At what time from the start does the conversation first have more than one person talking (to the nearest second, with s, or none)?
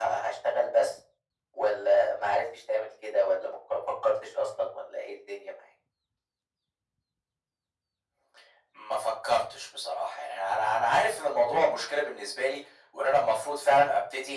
none